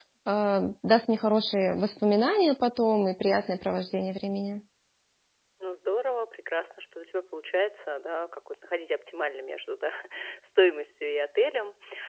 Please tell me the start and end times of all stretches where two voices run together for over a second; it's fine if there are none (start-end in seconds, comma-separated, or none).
none